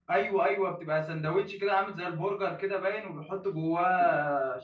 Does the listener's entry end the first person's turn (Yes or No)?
Yes